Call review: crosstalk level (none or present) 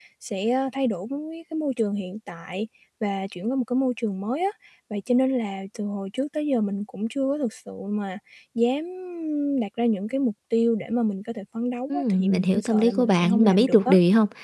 present